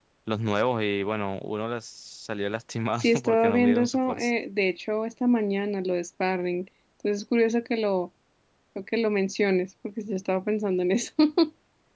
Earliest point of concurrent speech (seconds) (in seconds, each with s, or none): 3.0 s